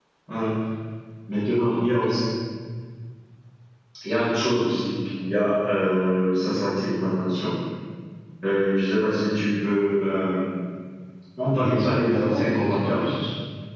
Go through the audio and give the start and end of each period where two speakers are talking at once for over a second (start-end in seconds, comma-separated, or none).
11.6-13.0